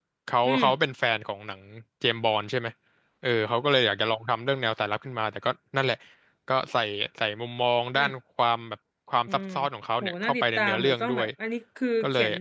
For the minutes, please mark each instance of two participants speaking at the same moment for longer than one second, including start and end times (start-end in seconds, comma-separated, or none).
10.0-11.3